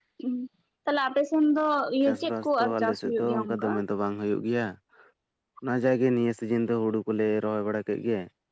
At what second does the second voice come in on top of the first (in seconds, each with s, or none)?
2.1 s